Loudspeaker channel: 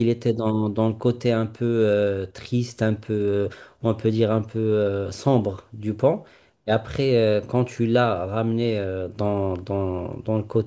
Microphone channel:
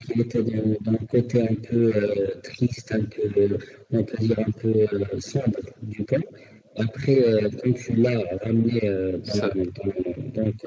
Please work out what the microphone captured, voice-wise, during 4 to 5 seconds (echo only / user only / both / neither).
echo only